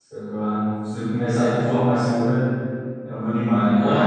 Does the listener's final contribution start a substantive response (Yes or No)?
Yes